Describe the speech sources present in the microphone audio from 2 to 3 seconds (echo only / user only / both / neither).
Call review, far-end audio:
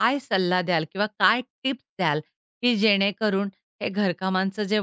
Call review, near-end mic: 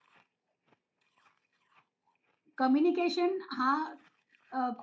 user only